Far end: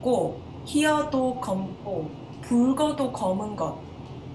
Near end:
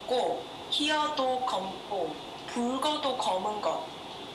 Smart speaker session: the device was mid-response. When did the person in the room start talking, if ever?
none

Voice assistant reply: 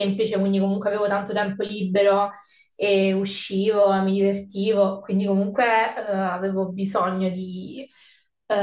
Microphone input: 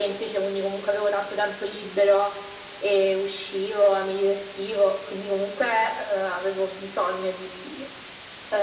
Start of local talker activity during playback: none

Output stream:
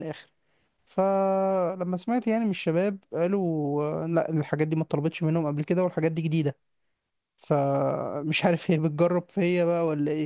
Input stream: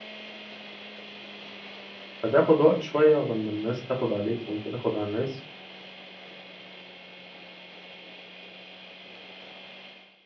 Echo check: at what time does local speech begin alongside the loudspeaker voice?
2.2 s

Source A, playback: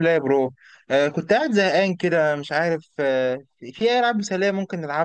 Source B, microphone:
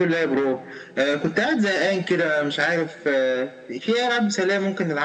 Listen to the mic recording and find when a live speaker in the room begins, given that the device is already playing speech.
none

